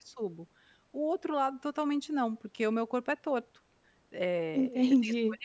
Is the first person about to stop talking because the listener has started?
No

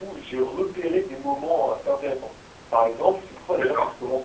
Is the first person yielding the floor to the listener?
No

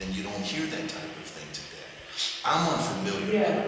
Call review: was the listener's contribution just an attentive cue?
Yes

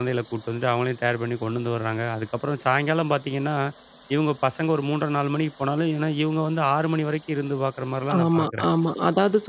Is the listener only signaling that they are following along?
No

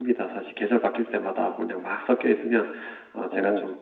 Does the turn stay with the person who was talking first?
Yes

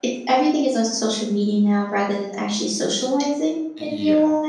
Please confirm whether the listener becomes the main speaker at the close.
Yes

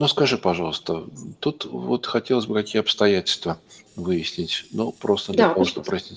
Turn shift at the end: No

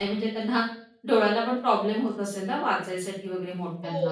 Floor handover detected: Yes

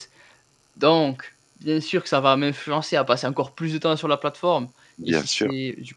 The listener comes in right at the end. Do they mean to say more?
No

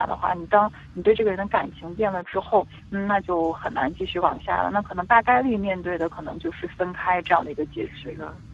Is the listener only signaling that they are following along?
No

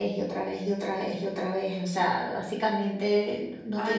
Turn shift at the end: Yes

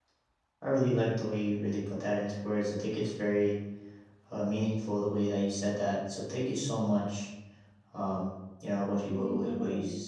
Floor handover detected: No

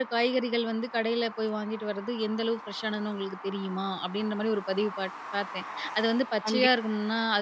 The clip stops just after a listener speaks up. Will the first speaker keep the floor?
Yes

